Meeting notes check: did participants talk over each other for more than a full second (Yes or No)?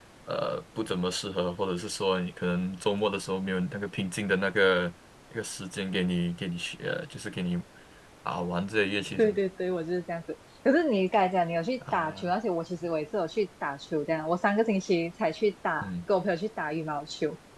No